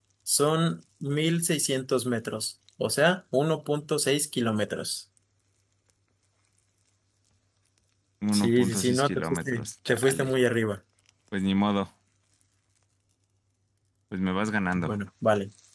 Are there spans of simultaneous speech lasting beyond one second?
Yes, from 8.3 s

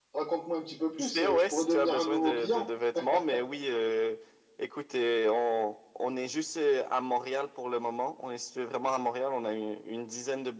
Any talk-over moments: Yes, from 1.0 s

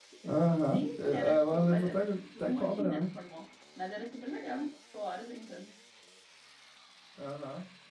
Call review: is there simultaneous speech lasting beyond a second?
Yes, from 0.7 s

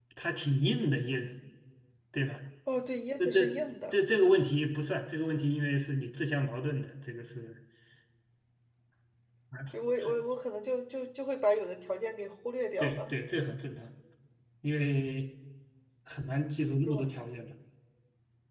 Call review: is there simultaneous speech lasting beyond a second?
No

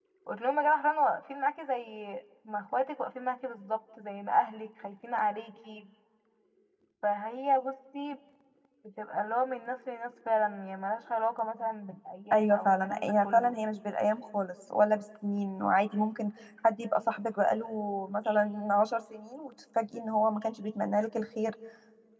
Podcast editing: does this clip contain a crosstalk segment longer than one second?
Yes, from 12.3 s

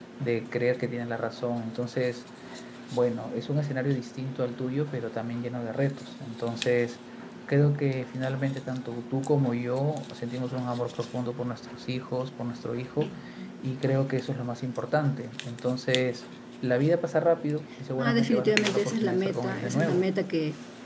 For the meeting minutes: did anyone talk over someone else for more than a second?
Yes, from 18.0 s

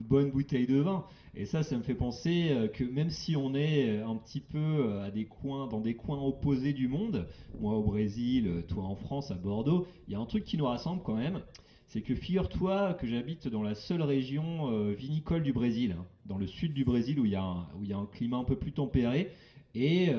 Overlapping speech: No

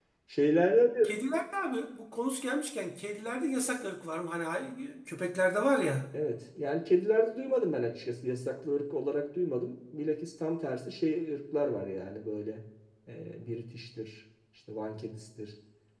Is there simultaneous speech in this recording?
No

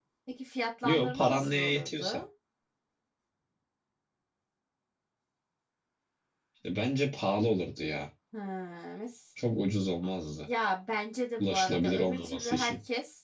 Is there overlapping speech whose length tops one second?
Yes, from 0.9 s

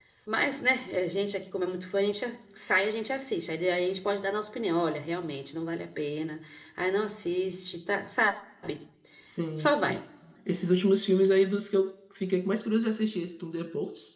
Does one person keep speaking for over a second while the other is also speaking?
No

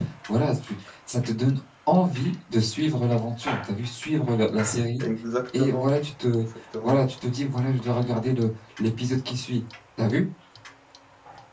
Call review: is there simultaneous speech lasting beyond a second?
No

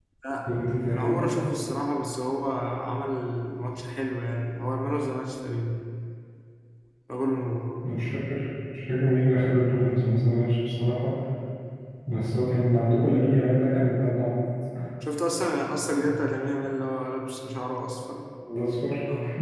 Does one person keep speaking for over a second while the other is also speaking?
No

